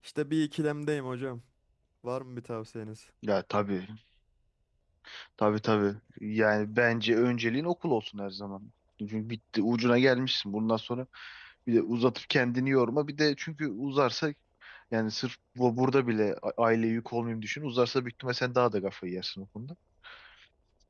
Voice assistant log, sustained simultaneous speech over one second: none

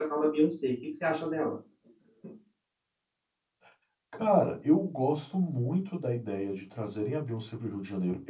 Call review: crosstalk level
none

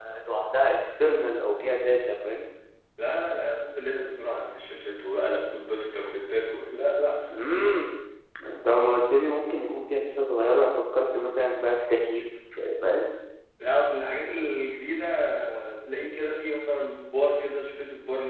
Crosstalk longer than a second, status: none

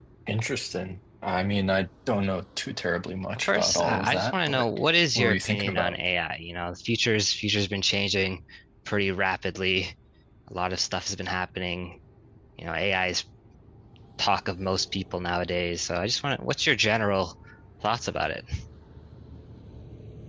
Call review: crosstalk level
present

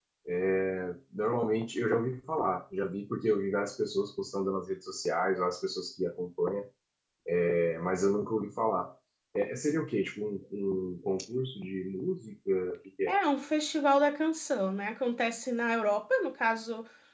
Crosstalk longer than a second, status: none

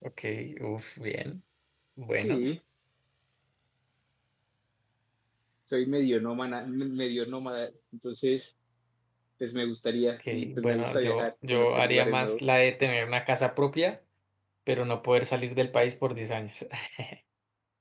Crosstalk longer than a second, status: present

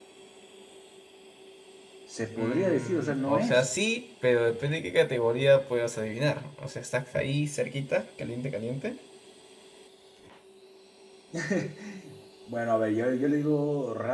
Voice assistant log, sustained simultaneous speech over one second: present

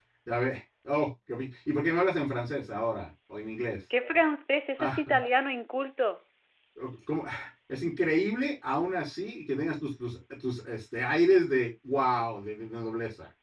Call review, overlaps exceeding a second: none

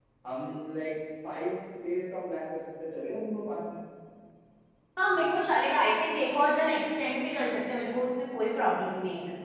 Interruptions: none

